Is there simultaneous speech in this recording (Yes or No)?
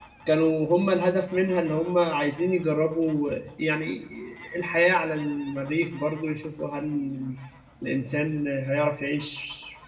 No